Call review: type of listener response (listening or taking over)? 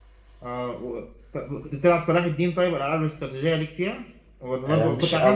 taking over